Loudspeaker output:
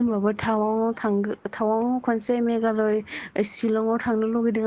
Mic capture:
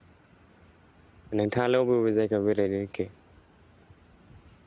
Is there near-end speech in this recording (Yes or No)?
Yes